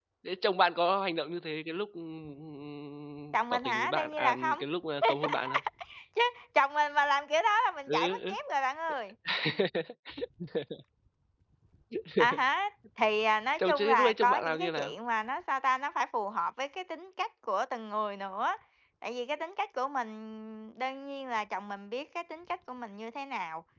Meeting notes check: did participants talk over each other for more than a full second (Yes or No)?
Yes